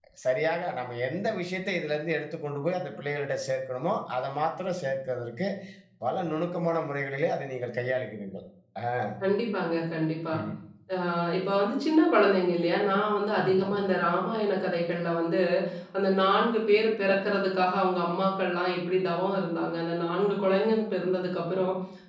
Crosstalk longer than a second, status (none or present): none